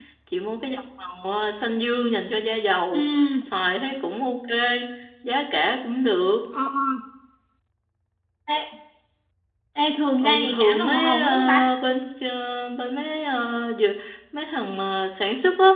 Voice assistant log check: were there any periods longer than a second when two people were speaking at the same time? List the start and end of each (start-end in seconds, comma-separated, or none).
10.2-11.7